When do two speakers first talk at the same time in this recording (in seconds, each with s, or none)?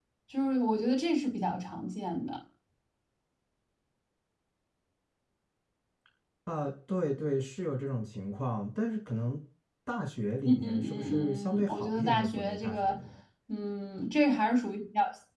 10.4 s